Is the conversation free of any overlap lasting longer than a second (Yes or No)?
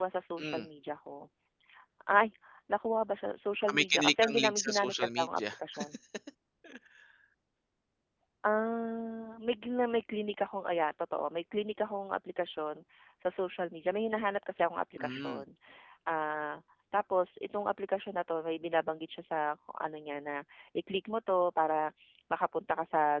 No